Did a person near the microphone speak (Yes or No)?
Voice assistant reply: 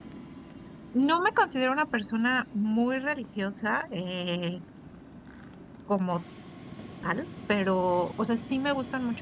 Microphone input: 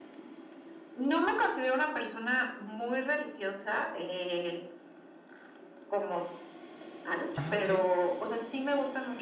Yes